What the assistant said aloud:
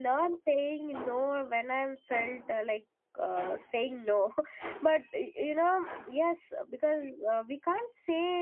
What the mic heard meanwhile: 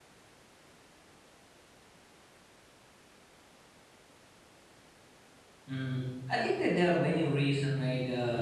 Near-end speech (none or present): present